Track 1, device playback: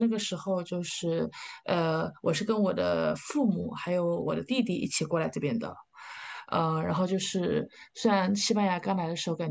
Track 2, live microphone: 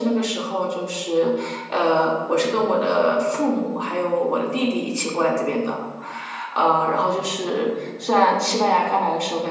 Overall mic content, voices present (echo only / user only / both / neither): echo only